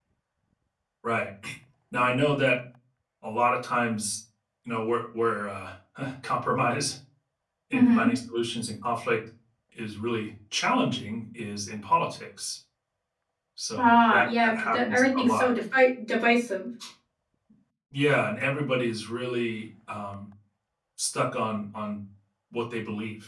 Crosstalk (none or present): present